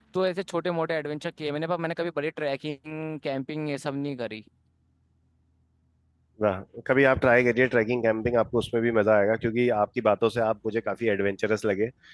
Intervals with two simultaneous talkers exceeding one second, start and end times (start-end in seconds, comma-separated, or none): none